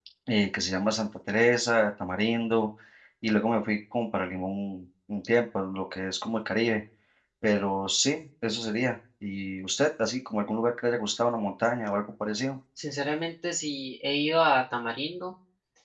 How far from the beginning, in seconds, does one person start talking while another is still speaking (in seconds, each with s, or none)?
none